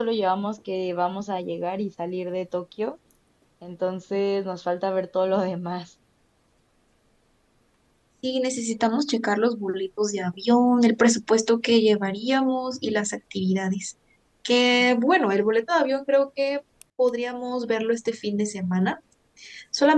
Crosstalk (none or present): none